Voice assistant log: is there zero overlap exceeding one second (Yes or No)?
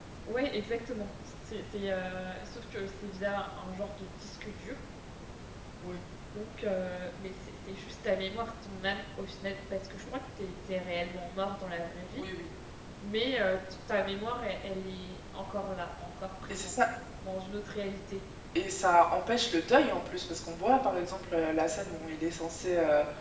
Yes